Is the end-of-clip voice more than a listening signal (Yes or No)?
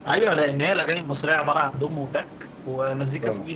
No